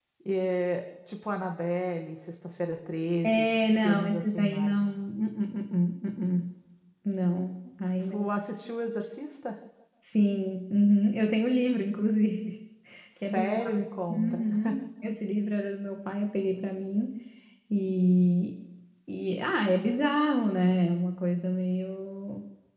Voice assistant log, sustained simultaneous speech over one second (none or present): present